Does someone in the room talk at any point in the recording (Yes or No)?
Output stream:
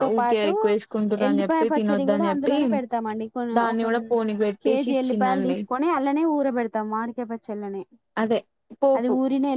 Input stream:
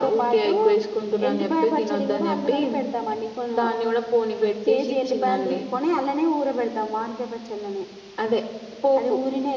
No